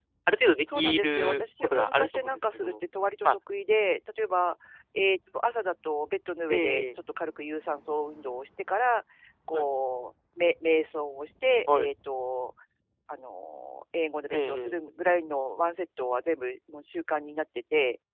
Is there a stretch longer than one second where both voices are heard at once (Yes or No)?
Yes